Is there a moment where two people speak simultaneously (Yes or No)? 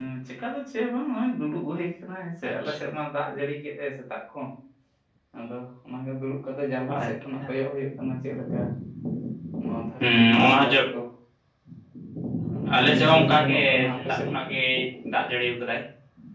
Yes